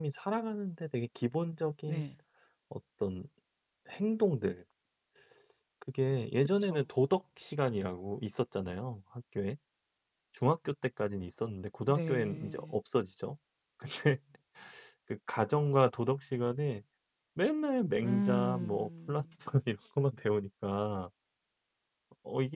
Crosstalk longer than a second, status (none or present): present